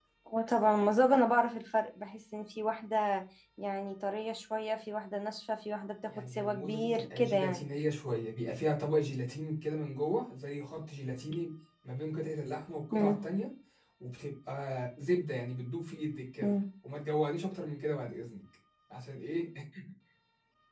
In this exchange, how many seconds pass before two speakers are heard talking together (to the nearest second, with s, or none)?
6 s